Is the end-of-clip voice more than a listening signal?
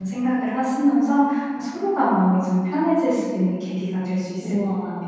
Yes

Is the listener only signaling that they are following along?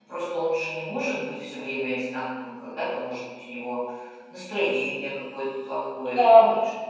Yes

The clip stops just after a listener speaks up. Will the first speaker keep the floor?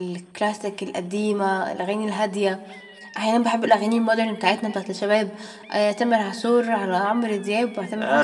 No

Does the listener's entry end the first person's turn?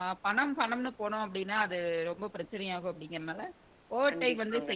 No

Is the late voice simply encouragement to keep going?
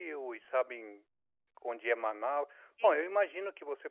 Yes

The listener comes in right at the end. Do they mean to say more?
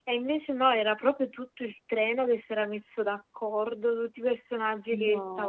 No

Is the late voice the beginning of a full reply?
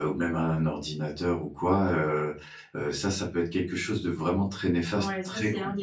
Yes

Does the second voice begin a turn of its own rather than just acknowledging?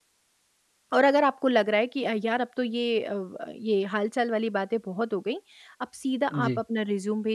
No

